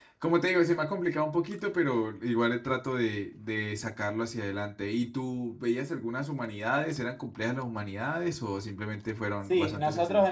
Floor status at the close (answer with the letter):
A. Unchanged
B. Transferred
B